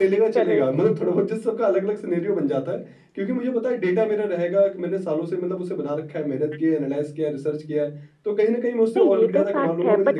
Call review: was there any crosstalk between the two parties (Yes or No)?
Yes